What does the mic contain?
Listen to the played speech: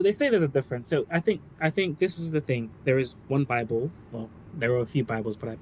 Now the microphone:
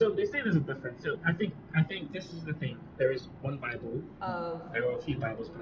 both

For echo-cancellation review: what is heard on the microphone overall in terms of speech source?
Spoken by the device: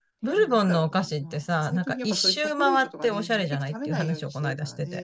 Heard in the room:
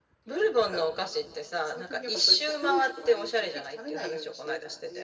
echo only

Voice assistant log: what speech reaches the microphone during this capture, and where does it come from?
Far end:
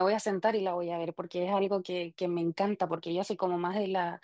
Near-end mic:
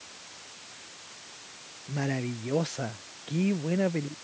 user only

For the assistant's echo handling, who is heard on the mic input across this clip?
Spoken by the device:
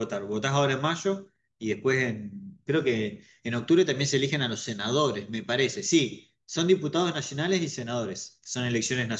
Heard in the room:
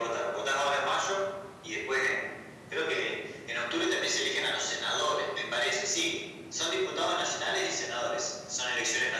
echo only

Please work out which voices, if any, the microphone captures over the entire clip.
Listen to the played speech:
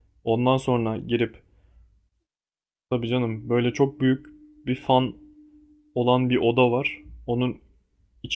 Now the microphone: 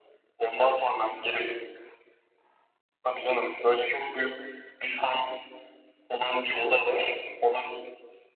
echo only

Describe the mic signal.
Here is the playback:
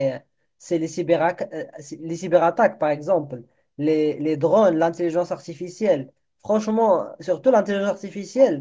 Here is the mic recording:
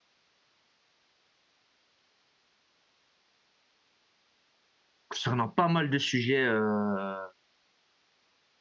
user only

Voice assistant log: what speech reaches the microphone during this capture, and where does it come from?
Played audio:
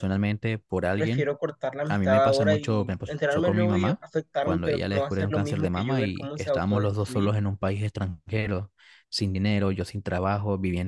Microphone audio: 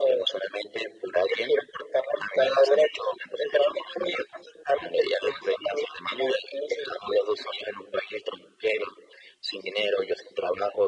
echo only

